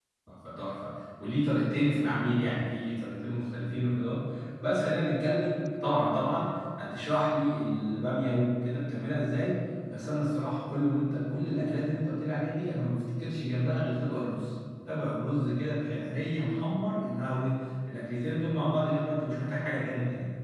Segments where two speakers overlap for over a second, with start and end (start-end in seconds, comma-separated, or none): none